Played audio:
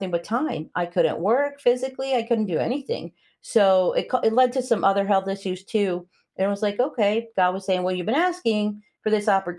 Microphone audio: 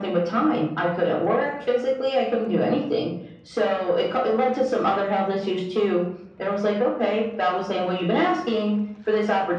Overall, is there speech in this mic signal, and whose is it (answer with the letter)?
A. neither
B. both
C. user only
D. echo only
D